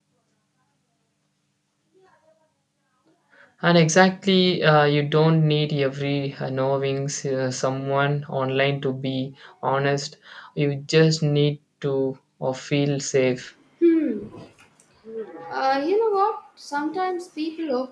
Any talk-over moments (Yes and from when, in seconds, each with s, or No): No